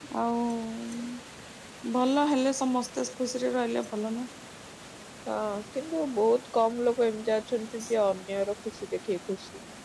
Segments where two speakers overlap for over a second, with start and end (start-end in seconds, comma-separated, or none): none